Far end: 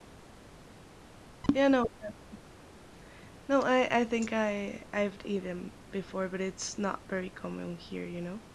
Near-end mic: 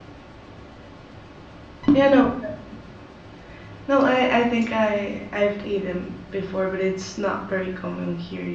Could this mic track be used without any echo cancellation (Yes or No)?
No